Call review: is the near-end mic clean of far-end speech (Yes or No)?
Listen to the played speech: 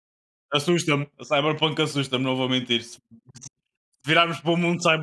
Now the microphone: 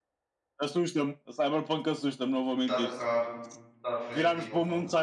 No